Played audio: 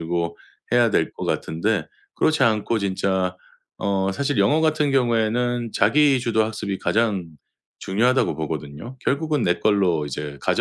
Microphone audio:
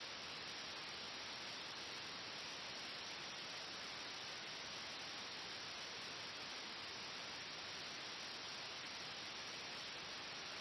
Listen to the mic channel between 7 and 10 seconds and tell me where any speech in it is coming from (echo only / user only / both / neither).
neither